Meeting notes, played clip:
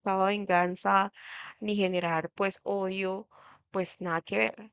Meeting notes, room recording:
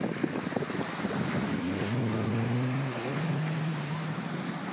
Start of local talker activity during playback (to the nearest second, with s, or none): none